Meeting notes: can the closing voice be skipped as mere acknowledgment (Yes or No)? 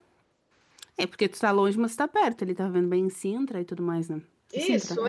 No